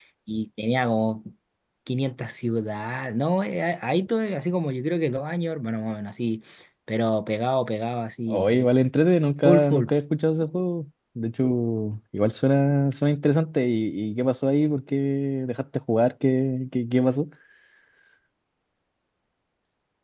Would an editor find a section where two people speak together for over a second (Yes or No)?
No